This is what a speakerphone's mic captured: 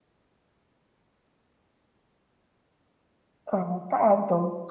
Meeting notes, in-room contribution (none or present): present